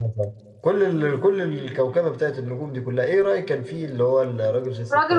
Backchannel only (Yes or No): No